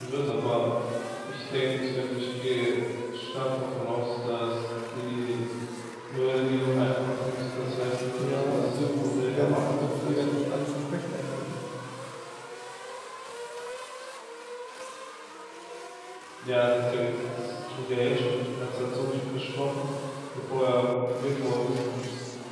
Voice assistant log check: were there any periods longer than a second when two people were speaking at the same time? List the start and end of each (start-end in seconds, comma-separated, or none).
8.2-10.3